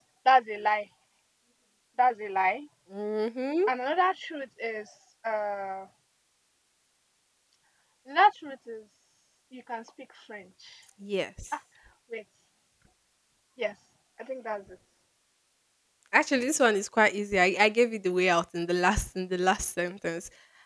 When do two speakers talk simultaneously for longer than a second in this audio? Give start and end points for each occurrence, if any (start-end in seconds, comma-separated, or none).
none